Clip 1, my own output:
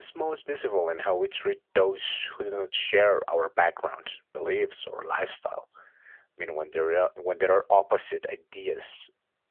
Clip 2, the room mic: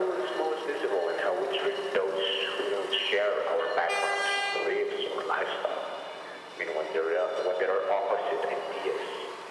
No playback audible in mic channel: No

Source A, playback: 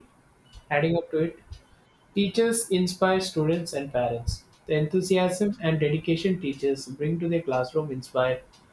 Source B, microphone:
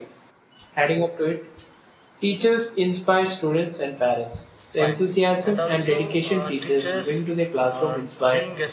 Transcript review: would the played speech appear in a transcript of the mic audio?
Yes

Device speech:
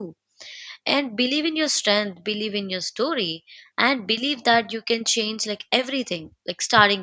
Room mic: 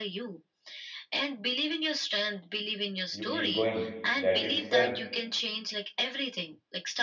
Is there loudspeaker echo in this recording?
Yes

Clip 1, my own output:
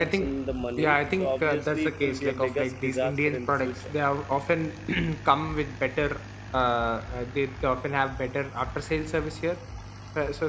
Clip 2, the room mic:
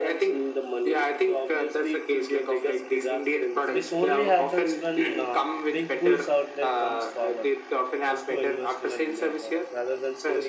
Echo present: Yes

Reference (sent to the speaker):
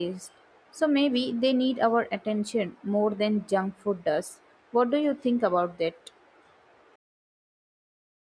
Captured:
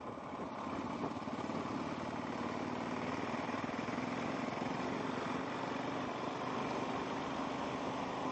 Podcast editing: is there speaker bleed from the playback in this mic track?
No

